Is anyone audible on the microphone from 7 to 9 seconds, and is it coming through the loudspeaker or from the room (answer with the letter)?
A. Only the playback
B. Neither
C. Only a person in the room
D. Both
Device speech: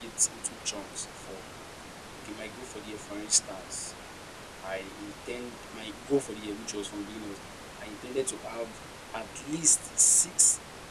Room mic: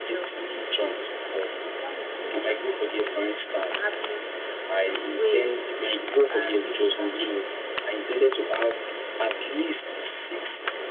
D